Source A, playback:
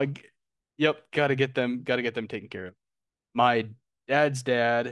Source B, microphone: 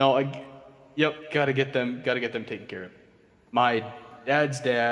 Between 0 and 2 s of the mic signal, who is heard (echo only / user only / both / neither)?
echo only